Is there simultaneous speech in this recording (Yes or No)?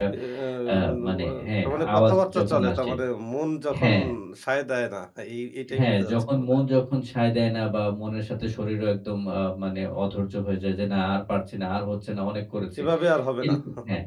Yes